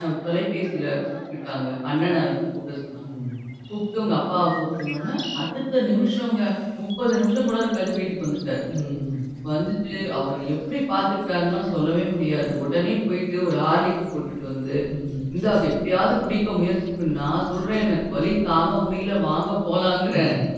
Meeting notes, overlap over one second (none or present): none